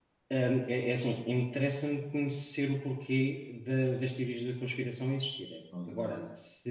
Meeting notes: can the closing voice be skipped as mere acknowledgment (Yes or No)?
Yes